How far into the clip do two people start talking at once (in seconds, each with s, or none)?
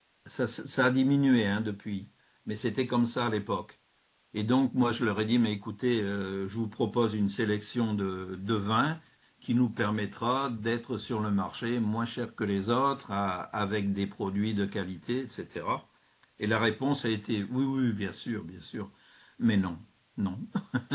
none